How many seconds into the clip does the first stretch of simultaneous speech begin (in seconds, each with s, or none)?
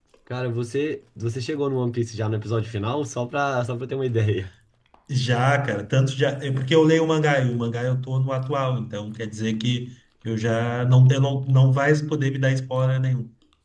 none